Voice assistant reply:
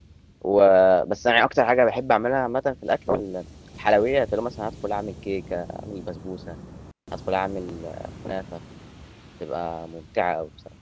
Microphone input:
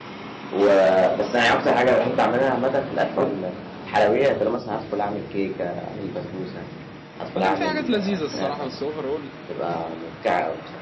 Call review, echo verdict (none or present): present